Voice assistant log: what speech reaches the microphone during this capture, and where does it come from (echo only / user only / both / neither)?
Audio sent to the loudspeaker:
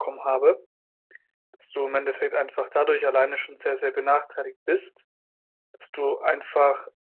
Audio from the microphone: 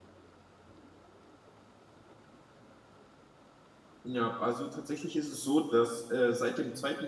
user only